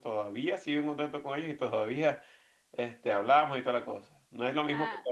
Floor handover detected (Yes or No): No